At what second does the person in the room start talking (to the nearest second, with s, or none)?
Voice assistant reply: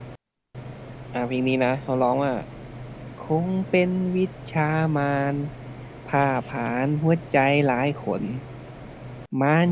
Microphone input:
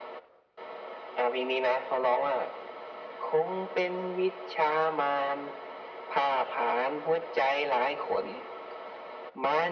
none